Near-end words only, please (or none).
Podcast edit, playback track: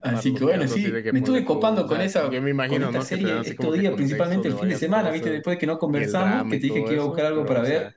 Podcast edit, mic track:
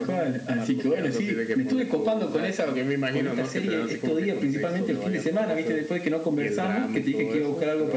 none